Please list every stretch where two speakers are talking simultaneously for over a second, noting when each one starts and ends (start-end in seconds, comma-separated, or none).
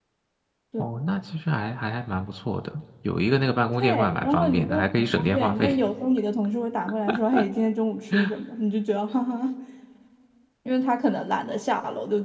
3.8-5.8